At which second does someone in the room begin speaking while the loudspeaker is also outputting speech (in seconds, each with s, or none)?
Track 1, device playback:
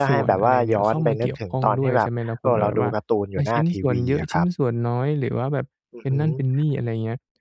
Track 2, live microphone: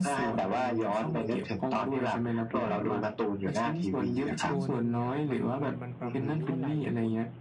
4.5 s